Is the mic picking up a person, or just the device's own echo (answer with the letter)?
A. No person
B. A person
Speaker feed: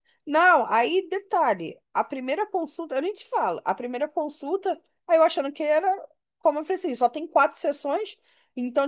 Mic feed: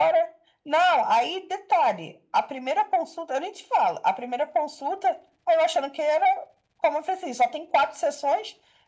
A